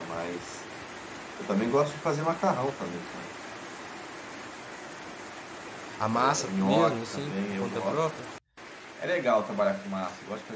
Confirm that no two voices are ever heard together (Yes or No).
No